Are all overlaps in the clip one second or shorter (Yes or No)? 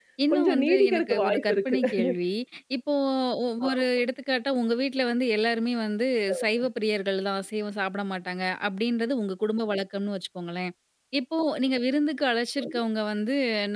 No